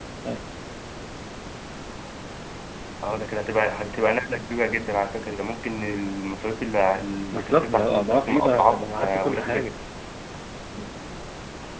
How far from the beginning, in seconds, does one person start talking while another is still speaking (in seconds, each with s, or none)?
7.3 s